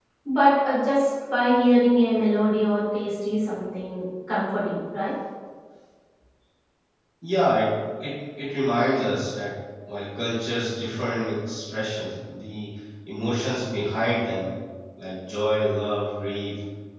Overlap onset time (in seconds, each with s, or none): none